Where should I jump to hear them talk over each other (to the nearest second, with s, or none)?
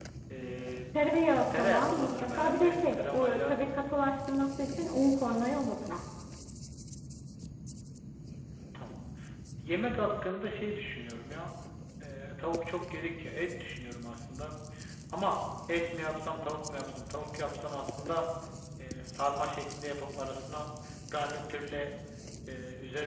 2 s